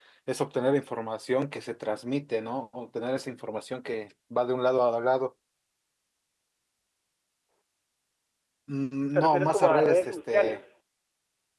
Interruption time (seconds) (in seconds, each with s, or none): 9.1 s